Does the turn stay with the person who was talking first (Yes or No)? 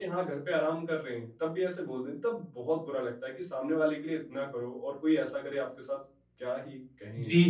No